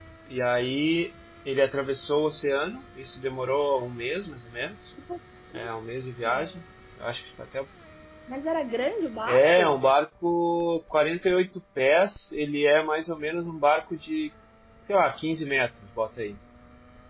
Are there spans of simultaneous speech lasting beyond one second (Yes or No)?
No